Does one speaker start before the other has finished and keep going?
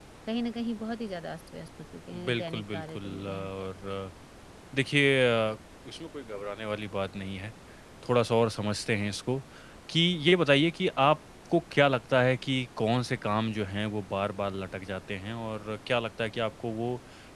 Yes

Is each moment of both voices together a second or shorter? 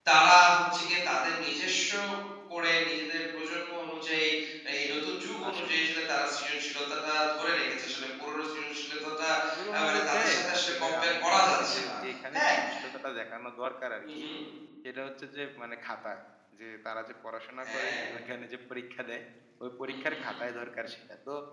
No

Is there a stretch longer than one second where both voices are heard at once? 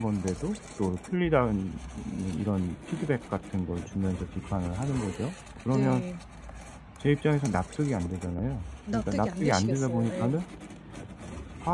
Yes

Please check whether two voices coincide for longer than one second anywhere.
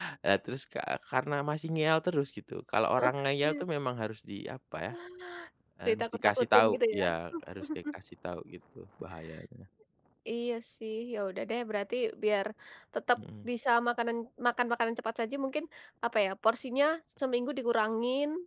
Yes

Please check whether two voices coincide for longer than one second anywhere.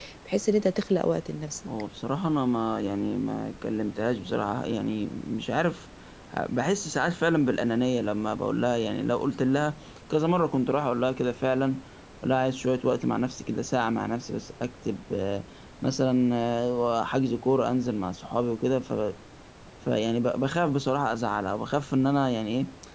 No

